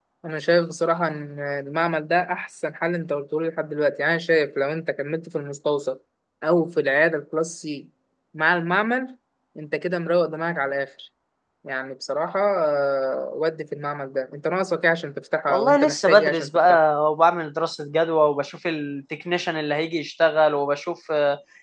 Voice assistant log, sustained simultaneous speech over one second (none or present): present